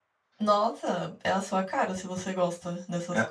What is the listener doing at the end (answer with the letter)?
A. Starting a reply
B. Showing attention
A